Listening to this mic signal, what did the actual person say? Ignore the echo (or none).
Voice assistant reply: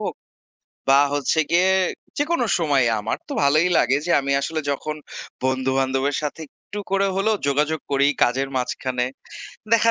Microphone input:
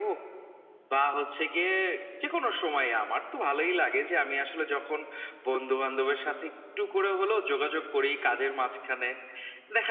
none